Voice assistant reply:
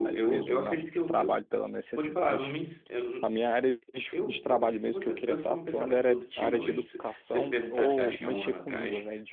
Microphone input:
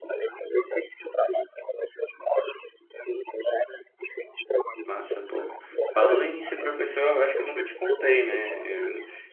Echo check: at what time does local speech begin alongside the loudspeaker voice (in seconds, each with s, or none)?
4.8 s